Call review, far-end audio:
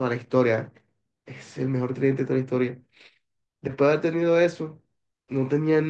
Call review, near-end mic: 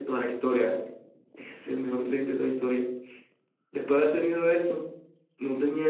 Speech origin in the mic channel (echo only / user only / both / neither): echo only